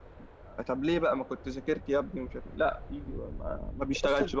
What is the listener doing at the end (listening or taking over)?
taking over